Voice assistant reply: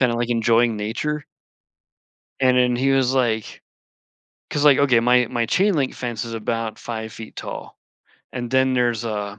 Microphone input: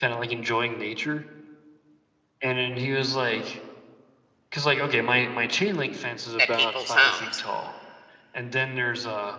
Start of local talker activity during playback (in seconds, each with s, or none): 6.4 s